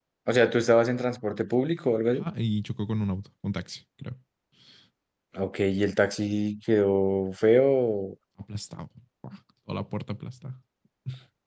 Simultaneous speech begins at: none

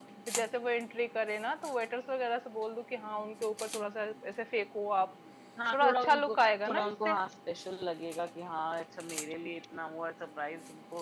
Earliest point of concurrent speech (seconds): 6 s

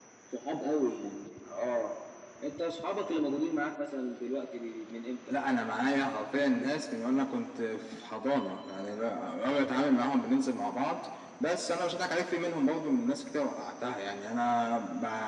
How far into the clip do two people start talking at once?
none

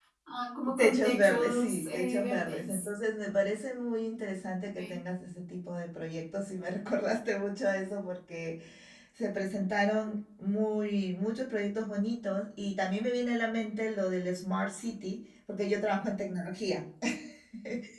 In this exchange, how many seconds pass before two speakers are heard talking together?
1 s

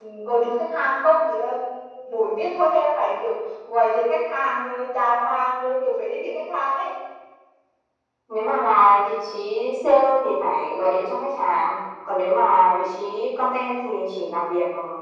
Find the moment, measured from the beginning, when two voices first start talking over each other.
none

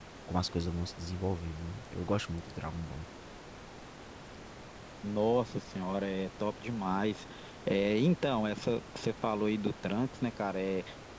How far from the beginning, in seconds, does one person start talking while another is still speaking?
none

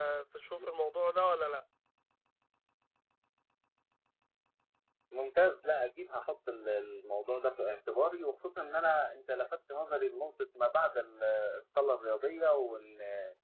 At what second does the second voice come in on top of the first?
none

